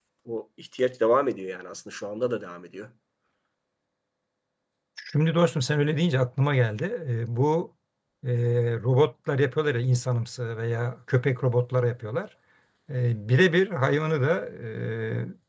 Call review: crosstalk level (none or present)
none